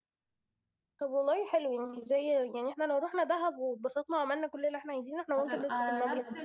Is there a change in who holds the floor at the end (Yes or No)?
Yes